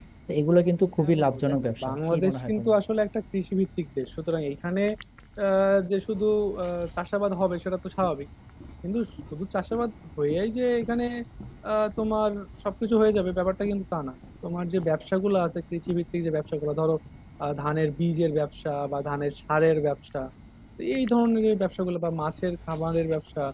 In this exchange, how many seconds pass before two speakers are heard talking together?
1 s

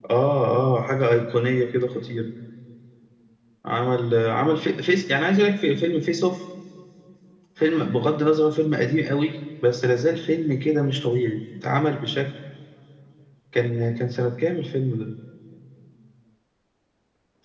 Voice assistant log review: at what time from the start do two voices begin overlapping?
none

